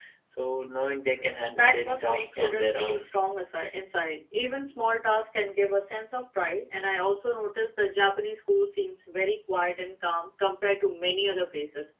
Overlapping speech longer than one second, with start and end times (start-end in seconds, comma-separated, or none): 1.5-3.1